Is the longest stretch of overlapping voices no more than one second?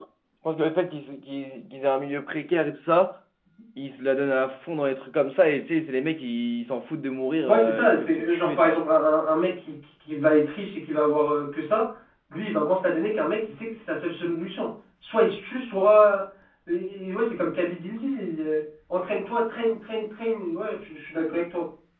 No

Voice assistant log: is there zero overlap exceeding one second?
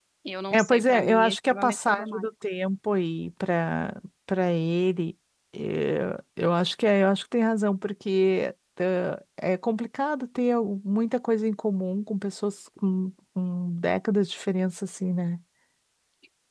No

